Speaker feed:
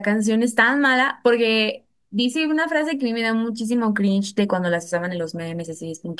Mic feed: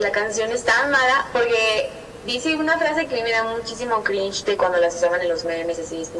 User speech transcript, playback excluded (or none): none